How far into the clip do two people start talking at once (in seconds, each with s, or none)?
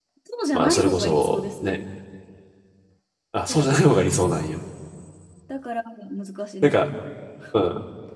0.5 s